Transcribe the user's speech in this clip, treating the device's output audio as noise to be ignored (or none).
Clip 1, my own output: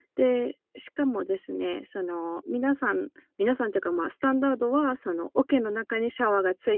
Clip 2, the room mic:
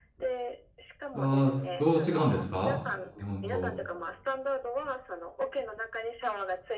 ああ、どう違うんですか？日本と。